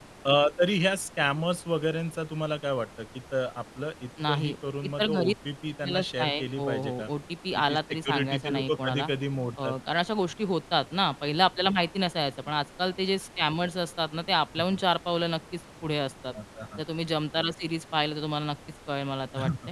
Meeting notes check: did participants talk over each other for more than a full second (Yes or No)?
Yes